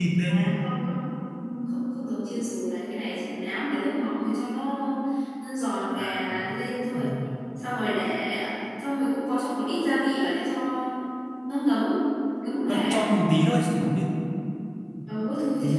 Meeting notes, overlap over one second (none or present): none